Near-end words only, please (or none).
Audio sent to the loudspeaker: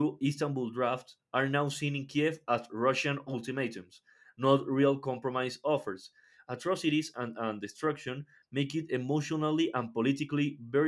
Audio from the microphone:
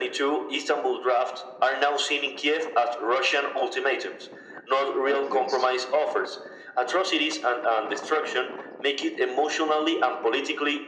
oh please